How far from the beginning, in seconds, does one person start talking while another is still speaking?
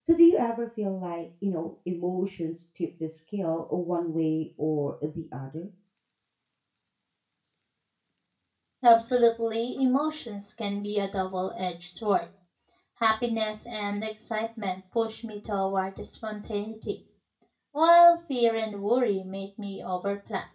none

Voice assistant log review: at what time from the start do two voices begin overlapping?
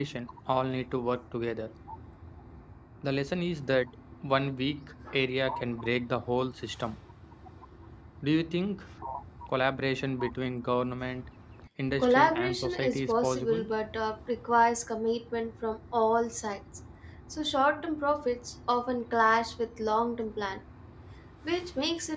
12.0 s

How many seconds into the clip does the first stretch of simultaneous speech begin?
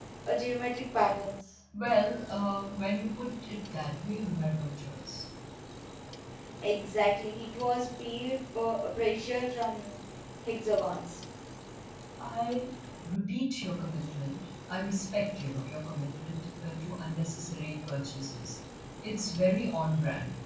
none

